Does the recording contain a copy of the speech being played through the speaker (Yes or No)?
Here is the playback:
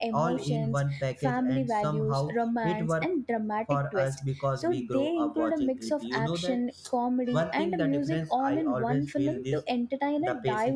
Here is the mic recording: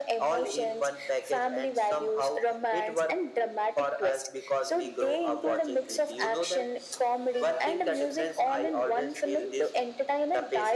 Yes